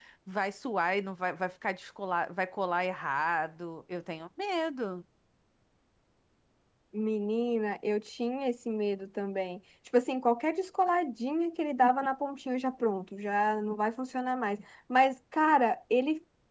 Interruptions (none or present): none